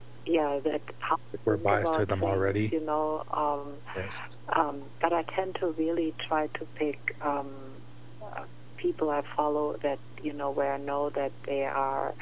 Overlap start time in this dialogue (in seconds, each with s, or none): 1.5 s